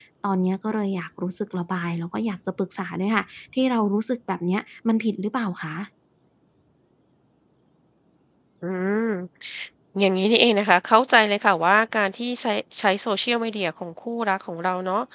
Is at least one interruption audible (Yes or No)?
No